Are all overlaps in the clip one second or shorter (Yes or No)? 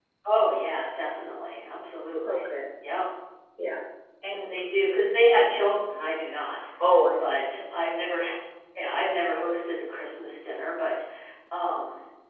Yes